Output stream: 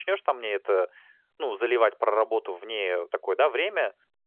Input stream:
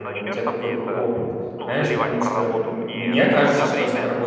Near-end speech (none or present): present